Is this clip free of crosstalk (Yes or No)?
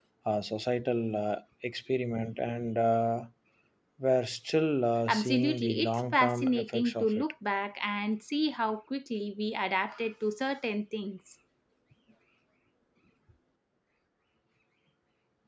No